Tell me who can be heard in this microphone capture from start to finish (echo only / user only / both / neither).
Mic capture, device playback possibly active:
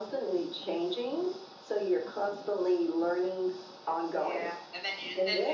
both